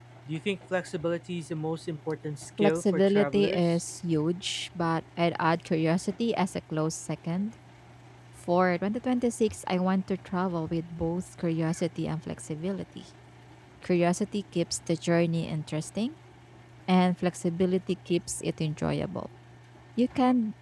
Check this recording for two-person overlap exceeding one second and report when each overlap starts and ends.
2.6-3.8

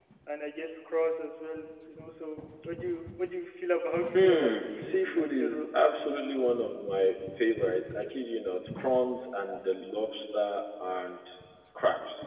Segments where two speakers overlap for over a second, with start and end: 4.1-5.6

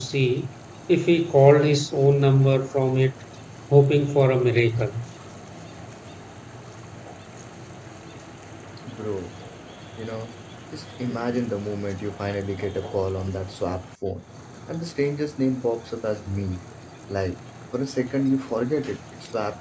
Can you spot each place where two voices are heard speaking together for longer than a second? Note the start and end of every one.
none

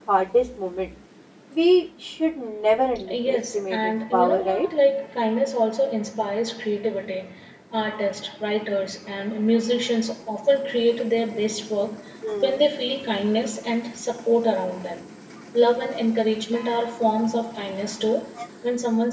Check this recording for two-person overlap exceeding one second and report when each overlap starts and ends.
3.1-4.7

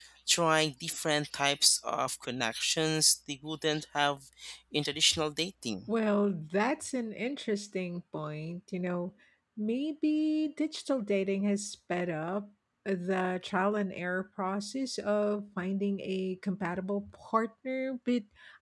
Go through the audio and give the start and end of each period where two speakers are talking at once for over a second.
none

